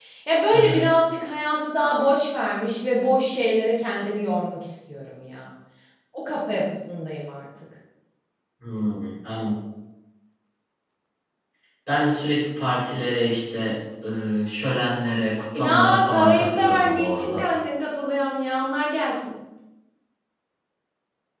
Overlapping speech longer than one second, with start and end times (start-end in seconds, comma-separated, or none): 15.6-17.4